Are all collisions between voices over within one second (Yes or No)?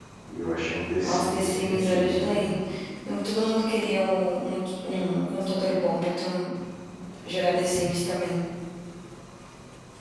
No